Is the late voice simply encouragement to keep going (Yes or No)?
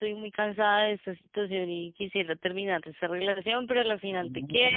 Yes